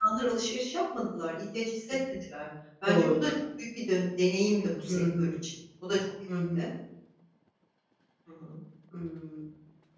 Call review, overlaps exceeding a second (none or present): none